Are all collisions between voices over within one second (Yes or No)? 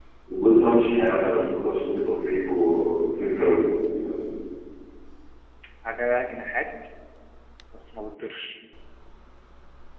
Yes